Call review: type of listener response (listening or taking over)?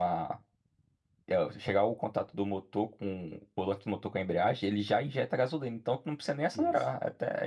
taking over